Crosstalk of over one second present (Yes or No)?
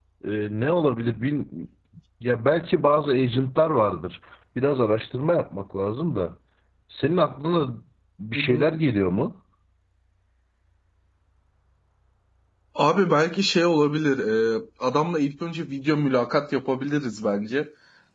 No